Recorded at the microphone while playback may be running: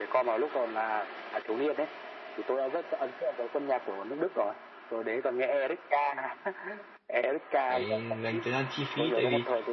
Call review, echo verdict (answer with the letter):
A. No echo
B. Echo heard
B